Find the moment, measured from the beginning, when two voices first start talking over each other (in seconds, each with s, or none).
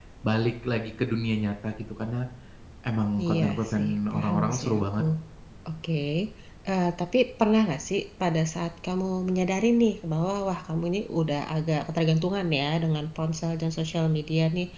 3.2 s